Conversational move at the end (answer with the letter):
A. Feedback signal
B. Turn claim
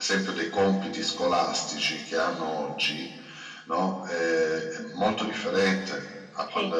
A